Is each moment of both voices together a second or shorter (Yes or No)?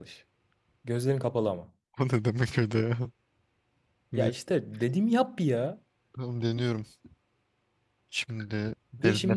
Yes